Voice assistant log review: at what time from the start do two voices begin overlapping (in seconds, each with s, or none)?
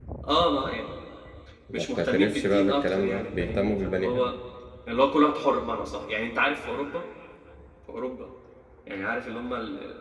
1.7 s